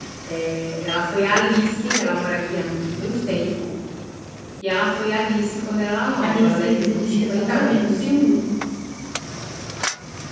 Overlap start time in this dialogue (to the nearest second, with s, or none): 6 s